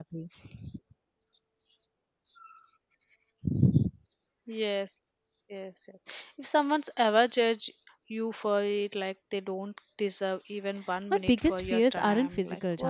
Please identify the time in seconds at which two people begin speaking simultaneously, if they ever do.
11.1 s

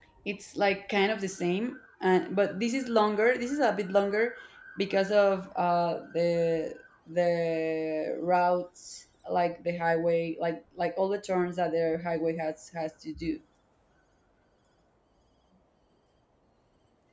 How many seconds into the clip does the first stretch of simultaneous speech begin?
none

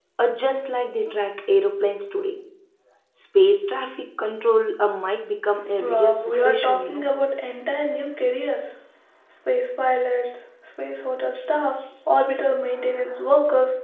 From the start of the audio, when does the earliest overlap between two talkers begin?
5.8 s

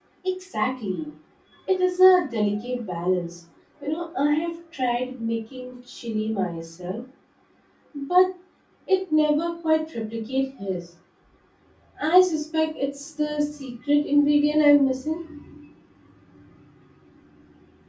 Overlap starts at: none

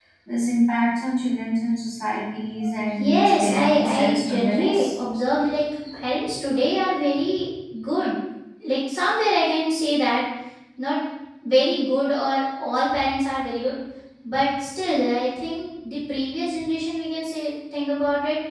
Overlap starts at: 2.9 s

